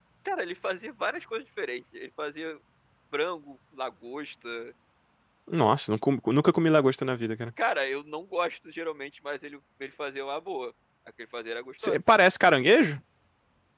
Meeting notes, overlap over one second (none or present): none